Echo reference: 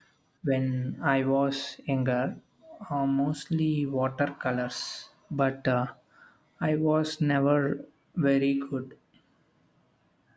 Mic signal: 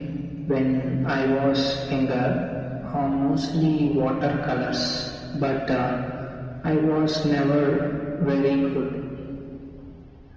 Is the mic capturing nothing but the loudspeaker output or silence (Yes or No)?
Yes